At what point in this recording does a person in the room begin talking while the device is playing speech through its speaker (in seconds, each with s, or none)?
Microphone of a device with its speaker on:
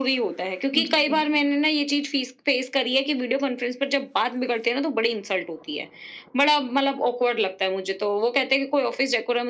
0.8 s